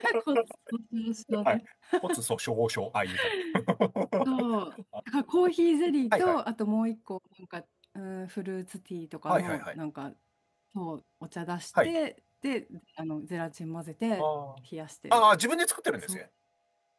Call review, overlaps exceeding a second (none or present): none